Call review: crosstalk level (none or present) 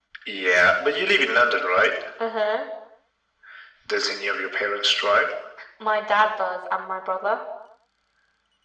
none